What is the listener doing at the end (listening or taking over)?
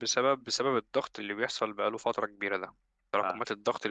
listening